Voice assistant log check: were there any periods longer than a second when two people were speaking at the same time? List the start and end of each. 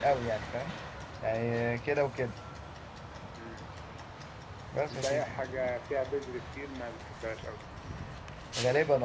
none

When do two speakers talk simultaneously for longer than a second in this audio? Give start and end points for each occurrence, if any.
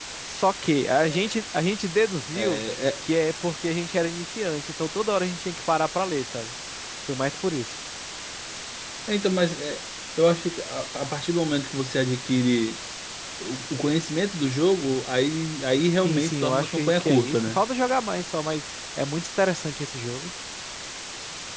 16.1-17.6

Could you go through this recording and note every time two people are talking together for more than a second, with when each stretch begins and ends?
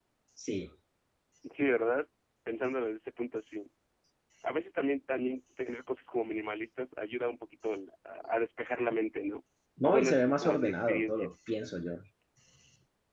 9.8-11.3

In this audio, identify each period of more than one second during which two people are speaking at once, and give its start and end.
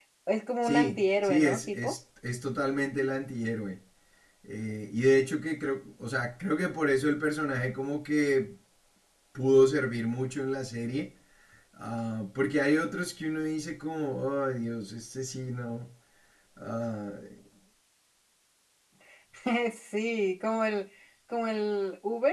0.6-1.9

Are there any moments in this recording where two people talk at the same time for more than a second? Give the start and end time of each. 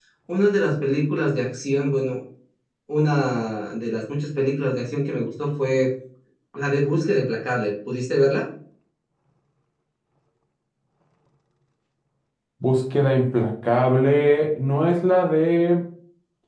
none

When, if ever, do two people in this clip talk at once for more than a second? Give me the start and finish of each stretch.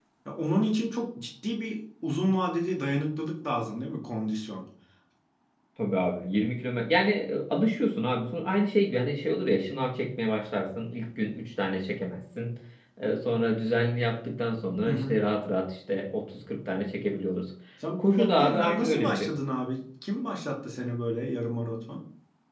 18.0-19.3

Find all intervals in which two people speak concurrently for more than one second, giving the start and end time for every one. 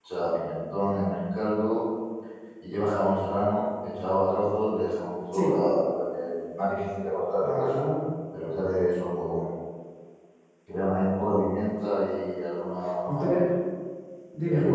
none

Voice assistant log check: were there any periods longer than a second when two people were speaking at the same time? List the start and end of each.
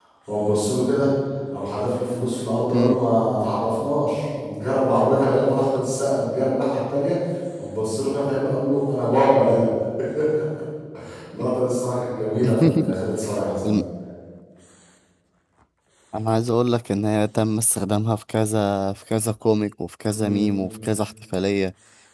none

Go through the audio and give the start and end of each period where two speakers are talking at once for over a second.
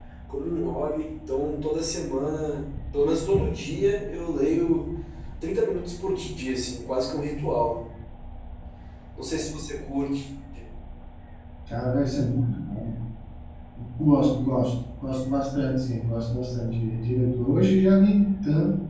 none

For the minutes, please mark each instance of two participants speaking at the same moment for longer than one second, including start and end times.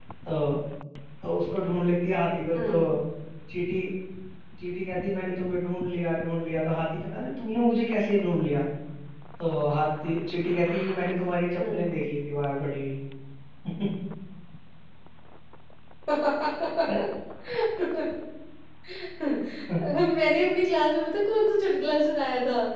none

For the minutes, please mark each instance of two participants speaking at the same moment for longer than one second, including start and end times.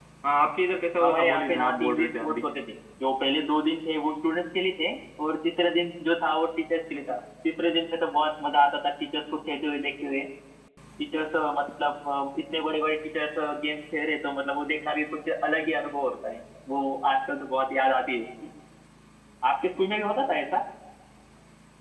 1.0-2.4

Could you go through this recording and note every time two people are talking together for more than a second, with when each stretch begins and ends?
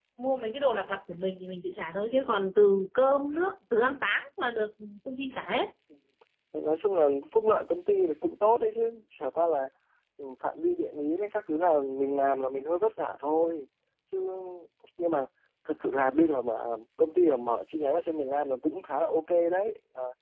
none

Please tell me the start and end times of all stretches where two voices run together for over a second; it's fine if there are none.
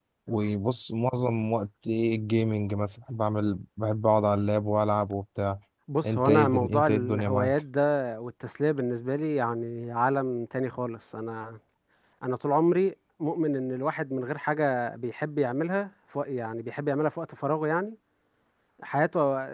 6.1-7.6

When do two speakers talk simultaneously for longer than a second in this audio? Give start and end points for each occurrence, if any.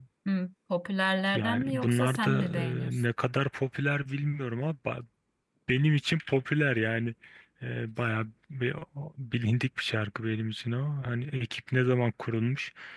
1.4-3.0

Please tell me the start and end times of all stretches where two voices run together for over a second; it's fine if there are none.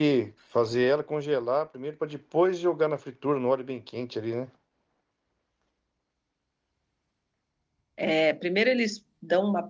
none

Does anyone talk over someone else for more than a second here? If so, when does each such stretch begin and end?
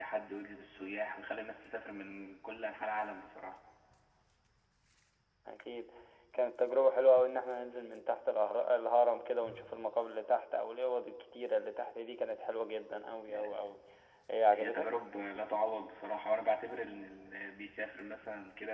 none

